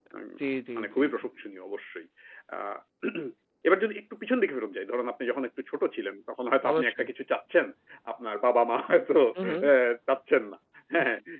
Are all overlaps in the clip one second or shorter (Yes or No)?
Yes